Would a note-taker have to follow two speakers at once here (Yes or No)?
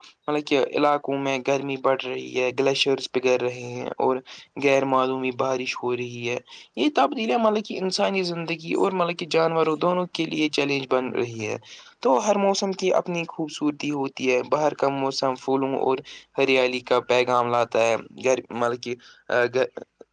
No